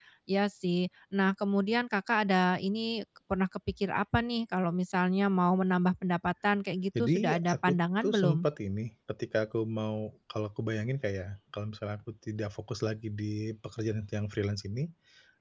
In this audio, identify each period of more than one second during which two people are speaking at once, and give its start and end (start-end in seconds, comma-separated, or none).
7.0-8.5